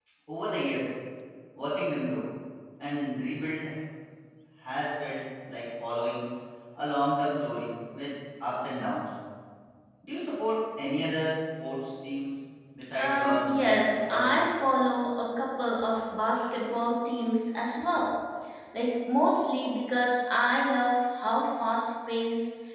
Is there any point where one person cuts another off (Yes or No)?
Yes